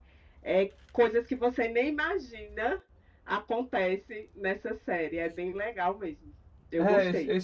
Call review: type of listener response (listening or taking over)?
taking over